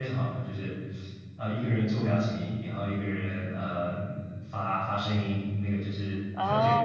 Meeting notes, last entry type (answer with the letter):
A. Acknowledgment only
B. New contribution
B